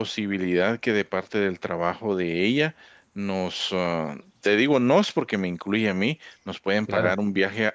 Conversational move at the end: listening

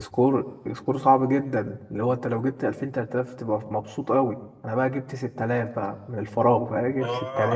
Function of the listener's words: listening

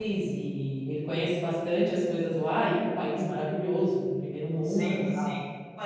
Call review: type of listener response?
taking over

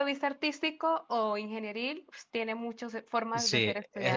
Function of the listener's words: taking over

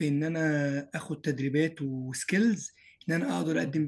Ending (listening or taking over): listening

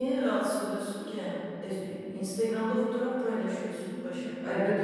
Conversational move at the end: taking over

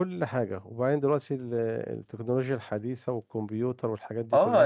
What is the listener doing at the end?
taking over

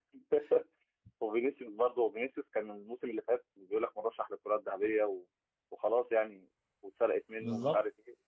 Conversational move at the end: listening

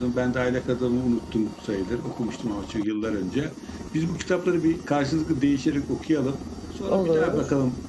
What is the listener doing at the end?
listening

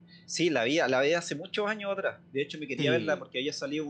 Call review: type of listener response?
listening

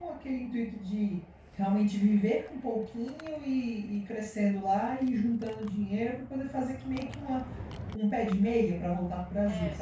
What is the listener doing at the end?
taking over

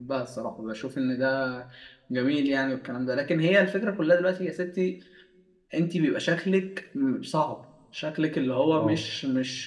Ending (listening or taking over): listening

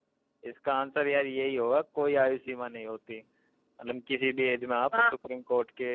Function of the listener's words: listening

